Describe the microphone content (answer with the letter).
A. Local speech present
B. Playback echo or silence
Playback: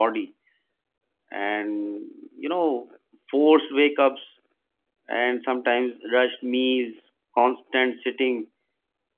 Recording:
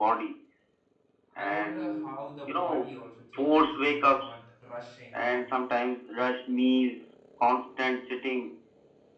A